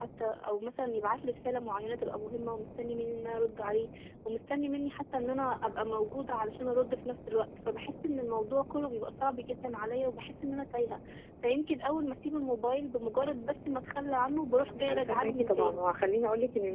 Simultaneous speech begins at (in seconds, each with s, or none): 14.6 s